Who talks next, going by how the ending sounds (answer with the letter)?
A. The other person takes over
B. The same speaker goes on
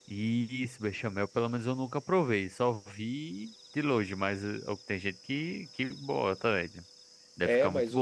A